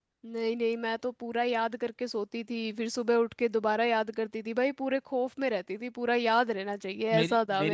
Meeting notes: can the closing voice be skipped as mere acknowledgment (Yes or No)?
No